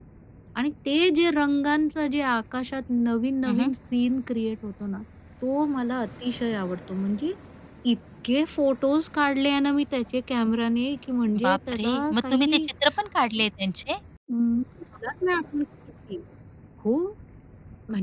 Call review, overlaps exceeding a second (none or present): present